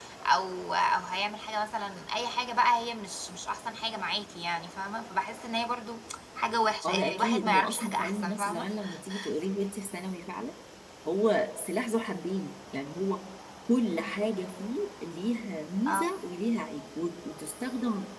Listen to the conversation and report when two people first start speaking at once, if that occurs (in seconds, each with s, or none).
6.8 s